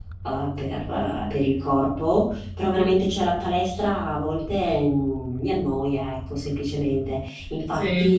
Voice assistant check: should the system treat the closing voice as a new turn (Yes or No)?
No